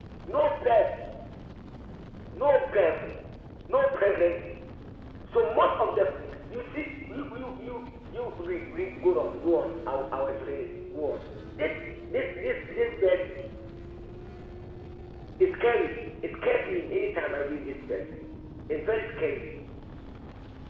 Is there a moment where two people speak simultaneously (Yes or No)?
No